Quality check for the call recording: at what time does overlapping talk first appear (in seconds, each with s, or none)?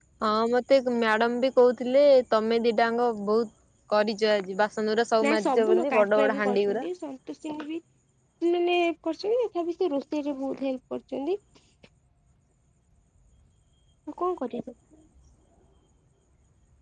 5.2 s